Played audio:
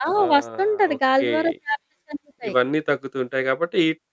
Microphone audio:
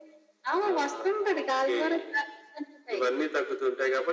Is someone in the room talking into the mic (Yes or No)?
No